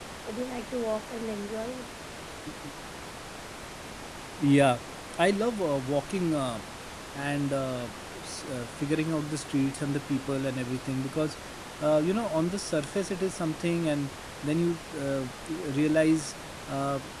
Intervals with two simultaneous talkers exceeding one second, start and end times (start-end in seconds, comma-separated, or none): none